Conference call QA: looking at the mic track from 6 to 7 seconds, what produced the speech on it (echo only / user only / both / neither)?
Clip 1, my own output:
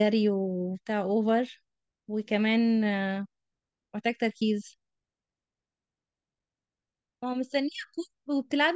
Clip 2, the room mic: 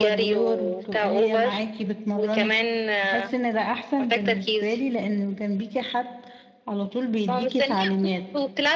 user only